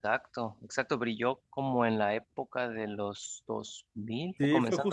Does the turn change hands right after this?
Yes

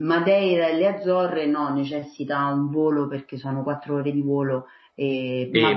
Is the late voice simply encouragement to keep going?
No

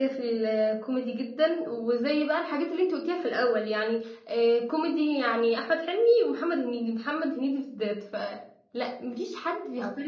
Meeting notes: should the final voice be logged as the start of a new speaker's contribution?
No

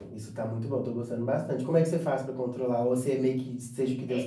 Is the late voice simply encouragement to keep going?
No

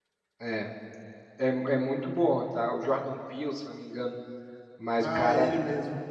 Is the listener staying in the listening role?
No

